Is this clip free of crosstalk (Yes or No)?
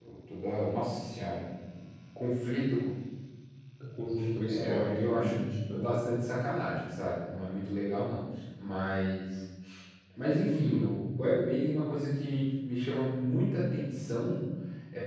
No